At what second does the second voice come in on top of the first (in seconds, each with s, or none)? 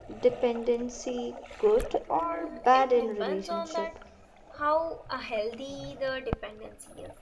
2.1 s